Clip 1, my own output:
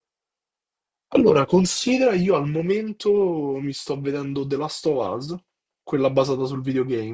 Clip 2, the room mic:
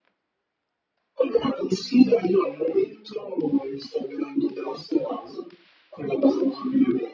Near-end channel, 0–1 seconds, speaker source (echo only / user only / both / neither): neither